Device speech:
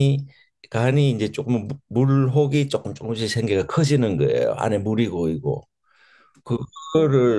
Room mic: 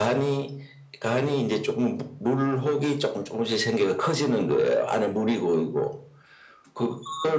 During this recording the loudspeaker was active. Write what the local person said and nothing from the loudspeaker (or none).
none